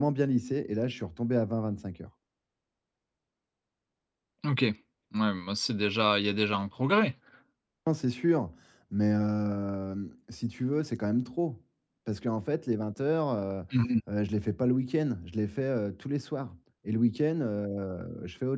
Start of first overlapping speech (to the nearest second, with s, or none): none